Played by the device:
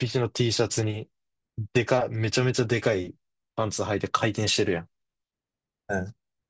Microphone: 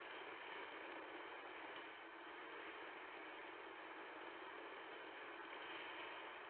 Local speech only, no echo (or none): none